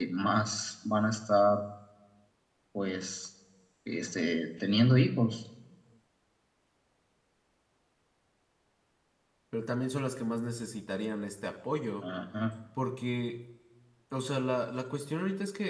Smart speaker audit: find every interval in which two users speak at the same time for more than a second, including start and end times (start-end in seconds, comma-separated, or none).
none